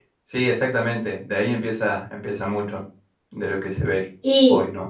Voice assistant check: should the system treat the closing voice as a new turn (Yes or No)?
Yes